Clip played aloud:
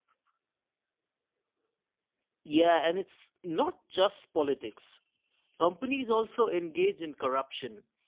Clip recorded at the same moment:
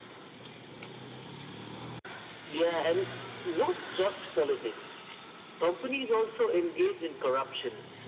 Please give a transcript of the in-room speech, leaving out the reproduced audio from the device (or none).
none